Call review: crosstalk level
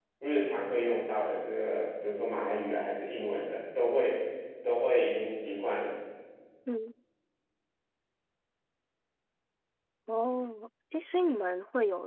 none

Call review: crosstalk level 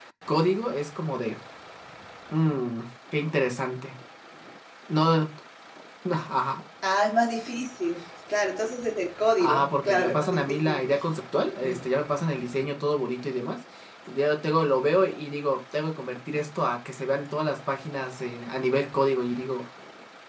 present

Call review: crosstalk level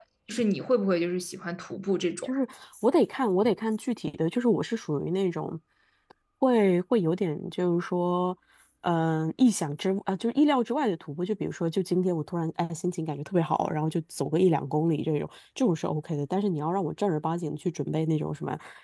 none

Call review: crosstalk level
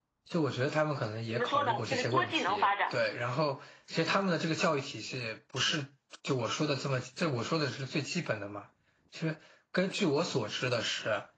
present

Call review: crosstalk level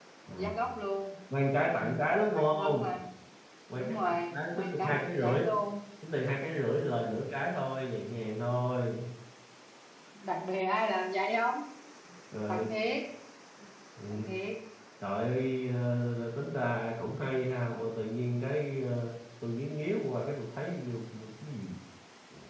present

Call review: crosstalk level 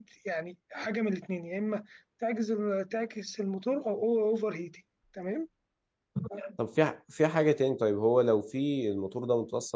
none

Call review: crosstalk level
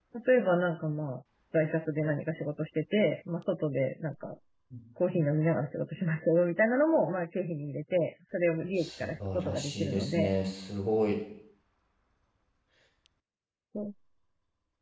present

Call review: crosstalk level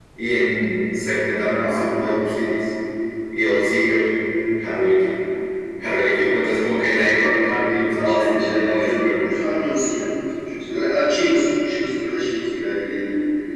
present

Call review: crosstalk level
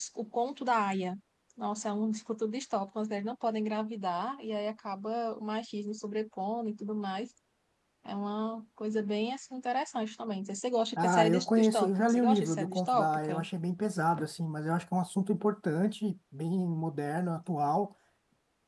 present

